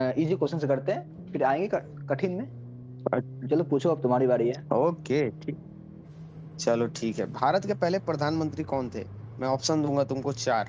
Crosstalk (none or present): none